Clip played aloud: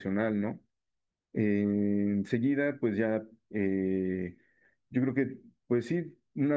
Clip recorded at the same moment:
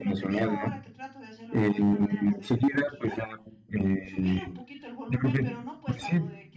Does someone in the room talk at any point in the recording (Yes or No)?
Yes